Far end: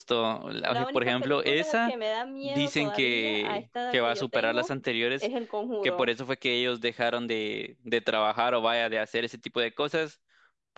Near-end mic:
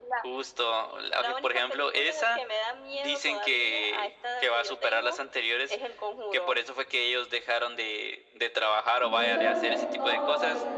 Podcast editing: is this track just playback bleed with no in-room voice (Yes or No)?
No